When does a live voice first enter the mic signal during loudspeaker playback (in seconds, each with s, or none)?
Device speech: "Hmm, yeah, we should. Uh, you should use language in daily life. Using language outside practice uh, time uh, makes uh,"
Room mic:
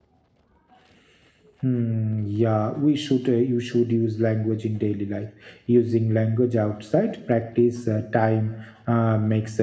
none